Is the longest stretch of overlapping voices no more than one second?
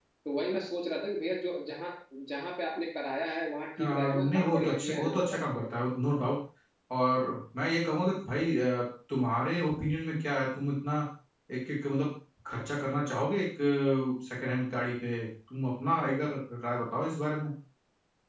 No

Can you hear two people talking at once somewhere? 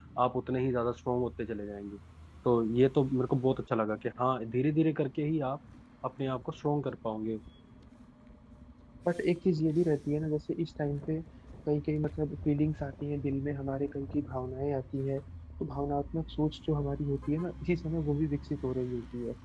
No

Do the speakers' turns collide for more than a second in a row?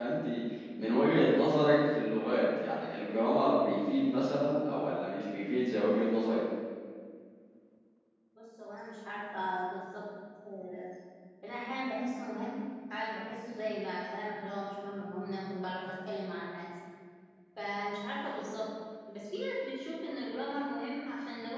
No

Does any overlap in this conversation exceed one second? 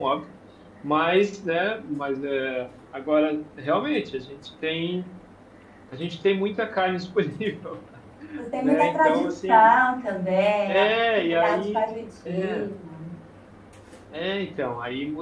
Yes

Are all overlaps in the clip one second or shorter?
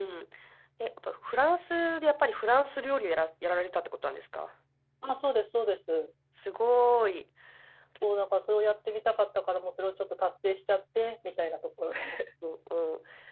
Yes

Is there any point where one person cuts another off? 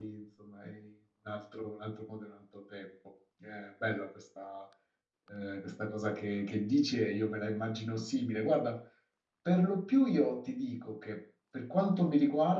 No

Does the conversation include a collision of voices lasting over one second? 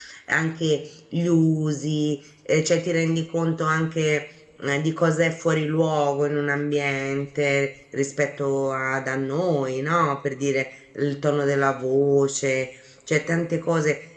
No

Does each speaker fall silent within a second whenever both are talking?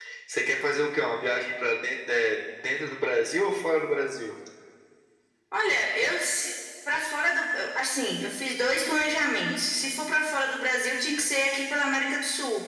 Yes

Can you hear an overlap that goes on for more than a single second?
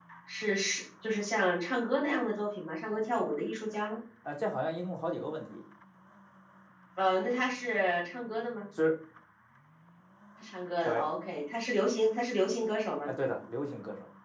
No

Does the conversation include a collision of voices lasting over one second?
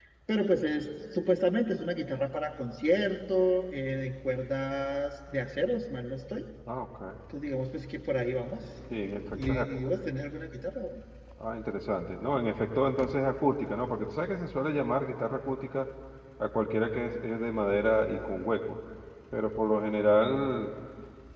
No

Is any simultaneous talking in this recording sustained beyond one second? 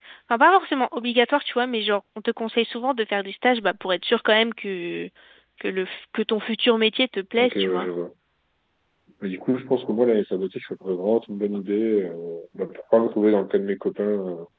No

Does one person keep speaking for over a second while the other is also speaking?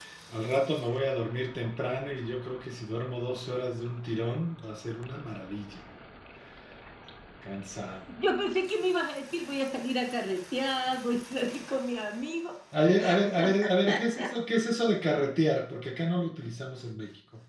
No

